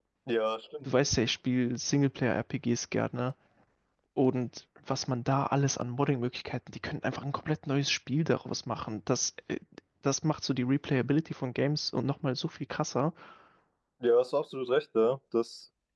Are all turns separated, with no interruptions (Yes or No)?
Yes